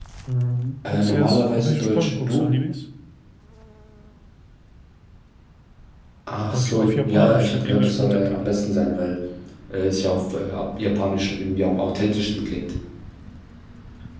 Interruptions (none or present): present